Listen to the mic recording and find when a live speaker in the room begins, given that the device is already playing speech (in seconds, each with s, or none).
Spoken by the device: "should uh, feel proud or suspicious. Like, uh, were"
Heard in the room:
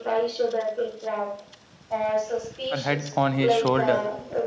2.7 s